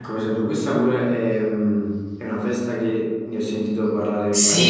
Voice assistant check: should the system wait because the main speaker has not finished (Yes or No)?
No